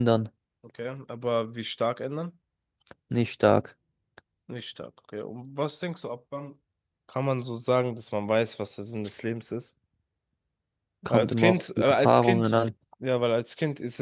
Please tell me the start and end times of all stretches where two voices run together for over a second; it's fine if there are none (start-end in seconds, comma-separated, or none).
11.1-12.5